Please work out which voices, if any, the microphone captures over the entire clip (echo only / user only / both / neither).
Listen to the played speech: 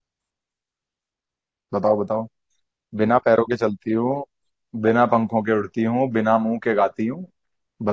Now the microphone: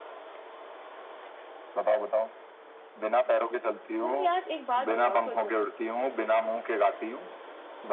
both